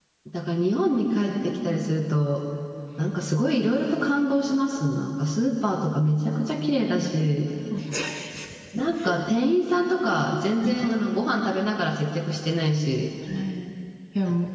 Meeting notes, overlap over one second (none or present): none